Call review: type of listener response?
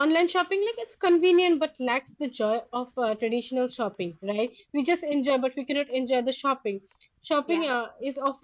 listening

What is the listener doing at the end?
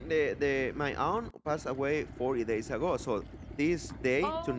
listening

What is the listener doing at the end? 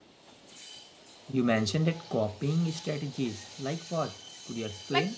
taking over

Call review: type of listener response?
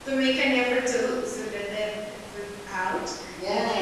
taking over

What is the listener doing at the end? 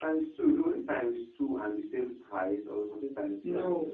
taking over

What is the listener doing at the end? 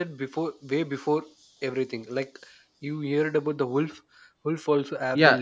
taking over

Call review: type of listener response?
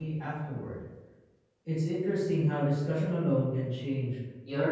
taking over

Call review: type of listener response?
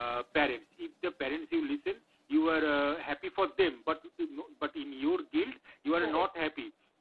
listening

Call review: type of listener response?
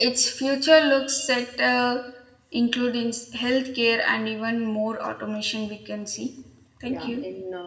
taking over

